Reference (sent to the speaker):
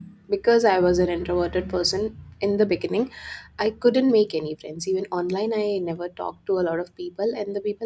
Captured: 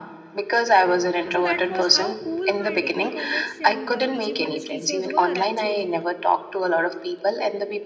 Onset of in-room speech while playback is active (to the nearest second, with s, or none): 1 s